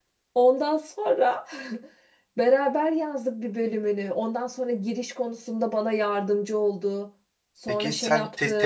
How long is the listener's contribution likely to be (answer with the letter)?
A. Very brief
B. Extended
B